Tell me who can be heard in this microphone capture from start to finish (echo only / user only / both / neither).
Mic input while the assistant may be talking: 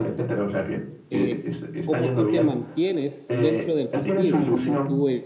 both